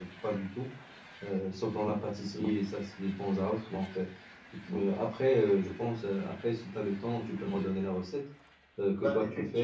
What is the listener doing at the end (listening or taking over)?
listening